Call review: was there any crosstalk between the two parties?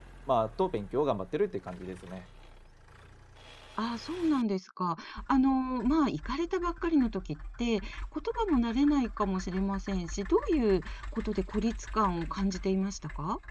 No

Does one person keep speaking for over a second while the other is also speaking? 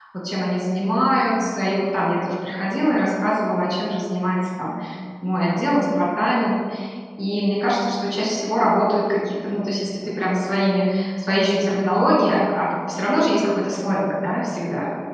No

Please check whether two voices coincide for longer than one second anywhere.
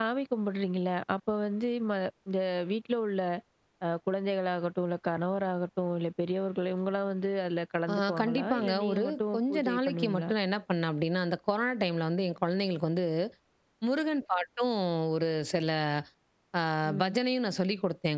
Yes, from 7.9 s

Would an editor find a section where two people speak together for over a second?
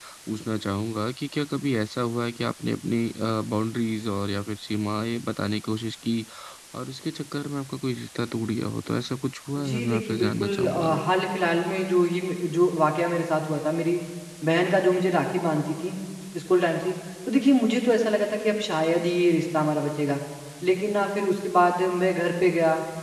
Yes, from 9.6 s

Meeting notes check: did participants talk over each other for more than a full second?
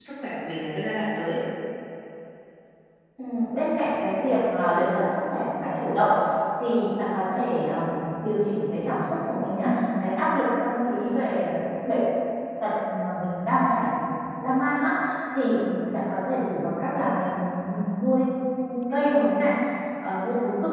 No

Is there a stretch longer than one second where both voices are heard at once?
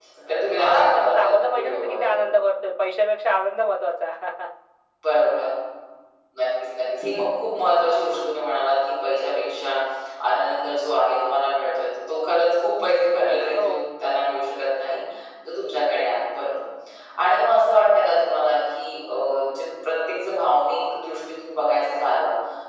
Yes, from 0.6 s

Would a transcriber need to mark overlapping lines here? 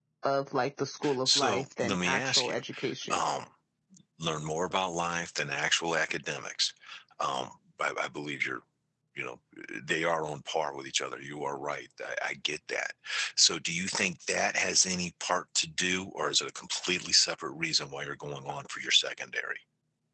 Yes, from 1.2 s

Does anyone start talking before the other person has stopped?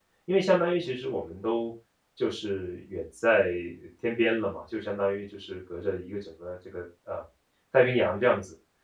No

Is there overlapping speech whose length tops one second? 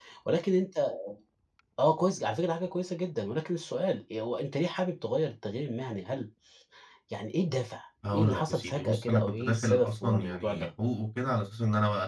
Yes, from 8.0 s

